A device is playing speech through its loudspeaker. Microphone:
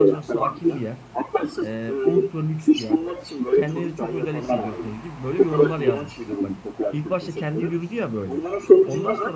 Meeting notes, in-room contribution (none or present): present